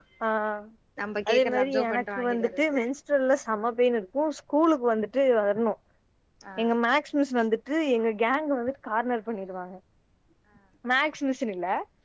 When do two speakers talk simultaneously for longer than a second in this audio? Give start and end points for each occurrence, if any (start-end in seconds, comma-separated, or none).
1.3-2.8